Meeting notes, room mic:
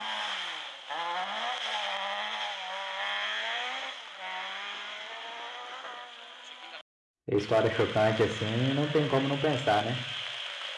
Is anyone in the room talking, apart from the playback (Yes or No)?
Yes